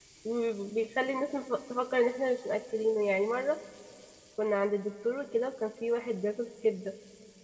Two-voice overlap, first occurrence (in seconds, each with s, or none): none